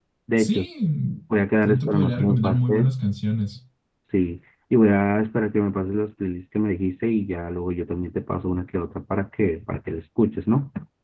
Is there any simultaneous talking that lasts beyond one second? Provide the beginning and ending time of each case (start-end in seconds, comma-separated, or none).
1.6-2.9